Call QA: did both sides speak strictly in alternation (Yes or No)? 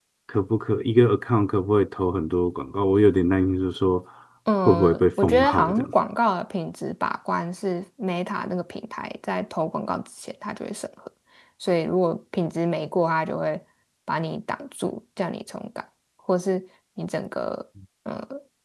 No